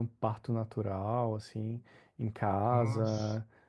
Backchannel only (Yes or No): Yes